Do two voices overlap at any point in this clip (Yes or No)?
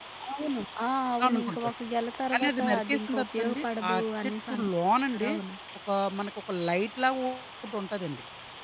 Yes